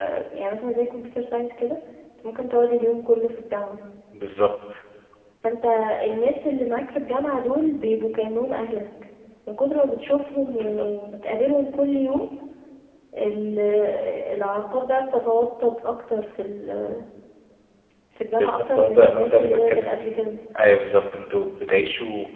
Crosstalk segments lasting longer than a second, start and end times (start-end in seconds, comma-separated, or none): 18.4-20.2